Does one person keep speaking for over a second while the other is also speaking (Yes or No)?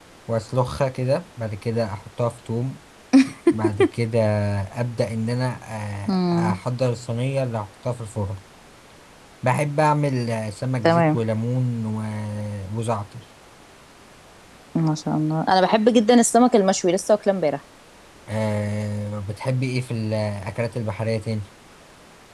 No